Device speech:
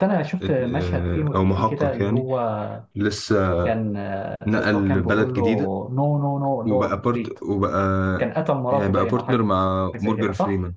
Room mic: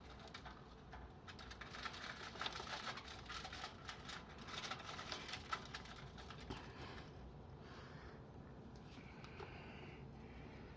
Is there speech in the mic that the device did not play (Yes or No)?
No